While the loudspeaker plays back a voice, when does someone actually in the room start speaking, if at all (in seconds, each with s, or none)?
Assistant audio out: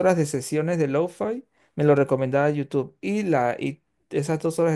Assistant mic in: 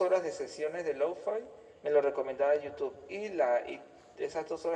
none